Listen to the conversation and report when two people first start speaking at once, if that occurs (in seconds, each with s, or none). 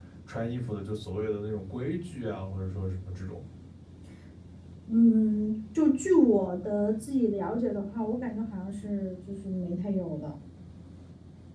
none